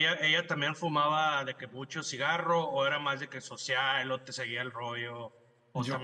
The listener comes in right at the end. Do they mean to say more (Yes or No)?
Yes